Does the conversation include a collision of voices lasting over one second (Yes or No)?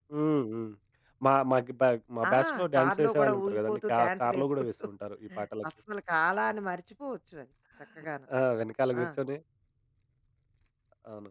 Yes